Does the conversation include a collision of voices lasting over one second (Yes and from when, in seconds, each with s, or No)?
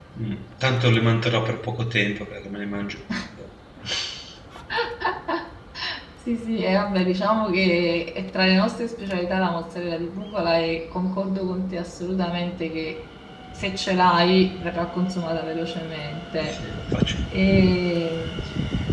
No